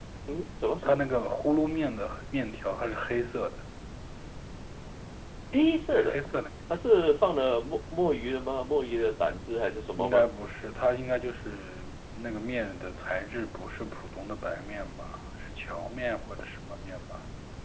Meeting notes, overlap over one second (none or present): none